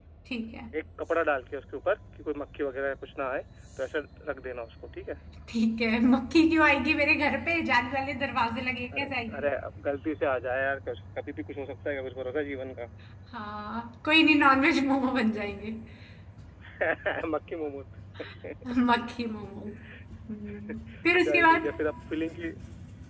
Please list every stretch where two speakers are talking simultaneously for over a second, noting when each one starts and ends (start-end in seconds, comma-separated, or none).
none